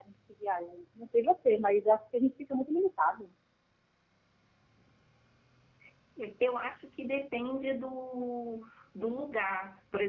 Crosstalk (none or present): none